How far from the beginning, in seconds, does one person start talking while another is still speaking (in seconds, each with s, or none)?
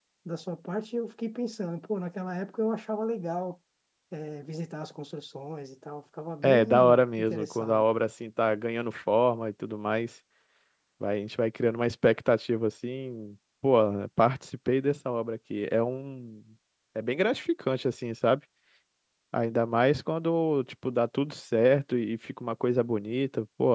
6.4 s